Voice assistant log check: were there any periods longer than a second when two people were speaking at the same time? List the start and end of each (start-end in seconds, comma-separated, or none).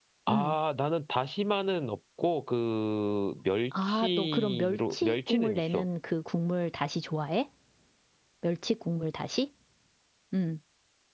3.8-5.8